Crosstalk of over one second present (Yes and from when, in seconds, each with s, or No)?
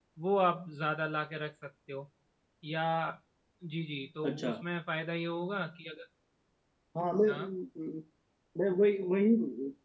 No